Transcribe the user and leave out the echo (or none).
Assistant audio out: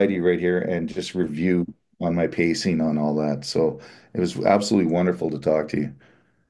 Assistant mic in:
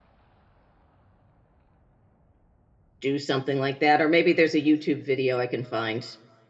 do something like that, or maybe there's a YouTube video I can find